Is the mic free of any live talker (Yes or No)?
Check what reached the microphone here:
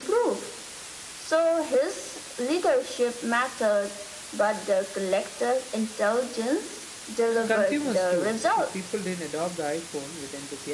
No